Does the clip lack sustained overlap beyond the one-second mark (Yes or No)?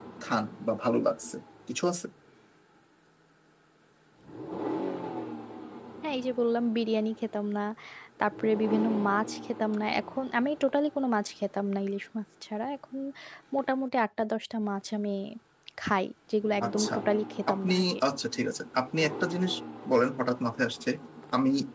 Yes